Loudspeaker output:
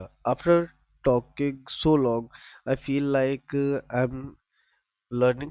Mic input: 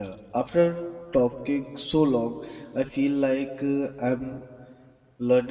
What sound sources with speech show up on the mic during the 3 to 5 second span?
echo only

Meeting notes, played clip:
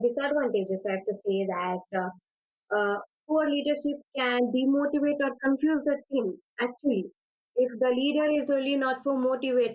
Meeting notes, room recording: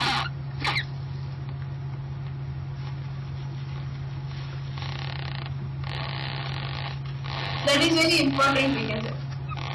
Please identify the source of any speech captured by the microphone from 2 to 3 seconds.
neither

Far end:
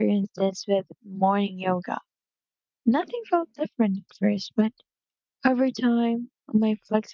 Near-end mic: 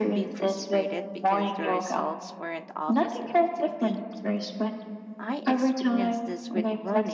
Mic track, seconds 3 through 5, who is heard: both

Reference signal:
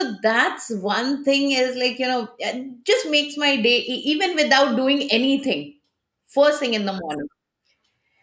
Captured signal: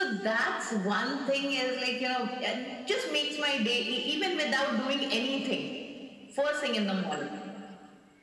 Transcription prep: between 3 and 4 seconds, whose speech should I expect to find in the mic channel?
echo only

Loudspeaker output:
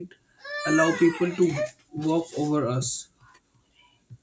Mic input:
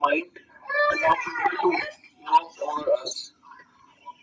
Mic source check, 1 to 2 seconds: echo only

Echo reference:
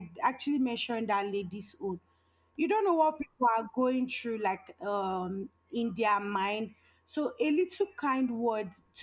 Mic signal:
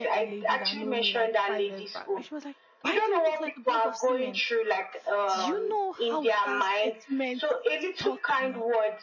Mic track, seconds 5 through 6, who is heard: both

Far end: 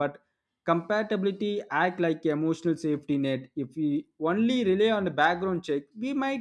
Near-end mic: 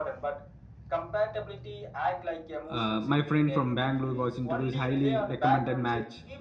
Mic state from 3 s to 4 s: both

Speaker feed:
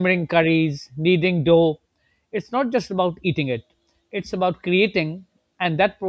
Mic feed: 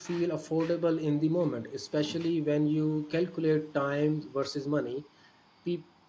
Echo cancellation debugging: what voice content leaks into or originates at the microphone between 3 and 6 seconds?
user only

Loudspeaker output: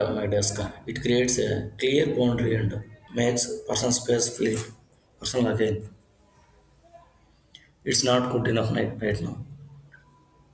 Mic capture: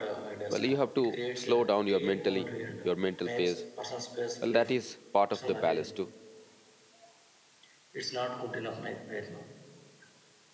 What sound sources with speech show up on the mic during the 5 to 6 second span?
both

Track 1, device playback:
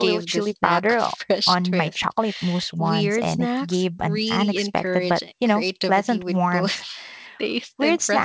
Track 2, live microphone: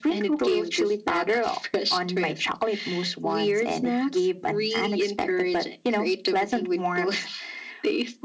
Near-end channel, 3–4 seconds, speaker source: echo only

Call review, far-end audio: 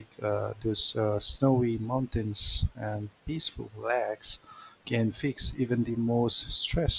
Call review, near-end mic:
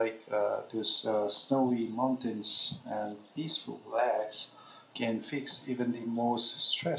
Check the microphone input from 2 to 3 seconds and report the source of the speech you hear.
echo only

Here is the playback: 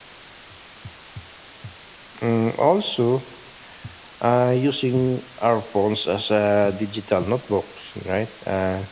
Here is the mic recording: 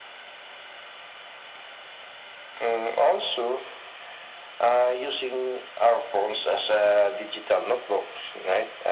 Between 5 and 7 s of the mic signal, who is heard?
echo only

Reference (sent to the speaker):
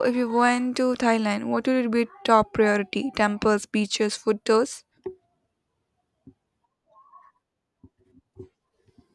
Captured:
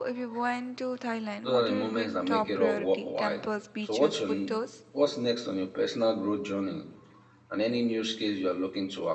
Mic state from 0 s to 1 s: echo only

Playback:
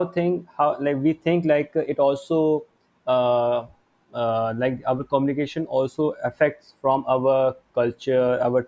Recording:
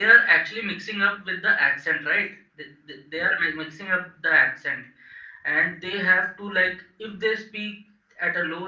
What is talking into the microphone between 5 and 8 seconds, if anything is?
user only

